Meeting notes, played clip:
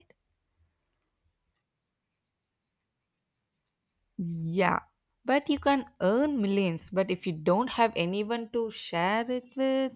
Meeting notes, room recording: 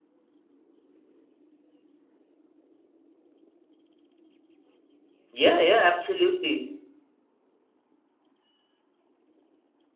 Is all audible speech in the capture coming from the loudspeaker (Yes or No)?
No